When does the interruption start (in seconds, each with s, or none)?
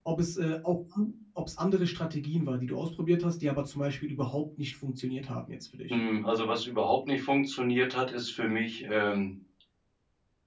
none